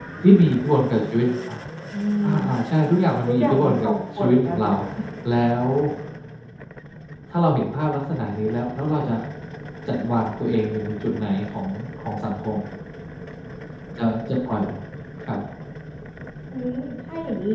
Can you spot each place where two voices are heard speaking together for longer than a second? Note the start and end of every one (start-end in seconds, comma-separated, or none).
3.3-4.7